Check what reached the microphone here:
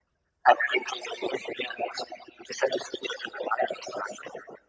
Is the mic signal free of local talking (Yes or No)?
Yes